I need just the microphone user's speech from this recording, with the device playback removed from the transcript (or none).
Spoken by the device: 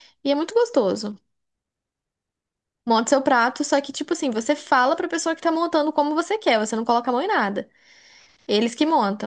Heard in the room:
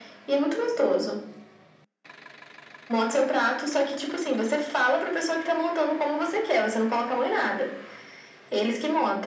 none